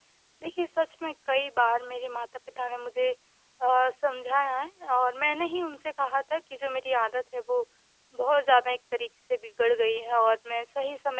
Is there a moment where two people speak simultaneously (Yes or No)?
No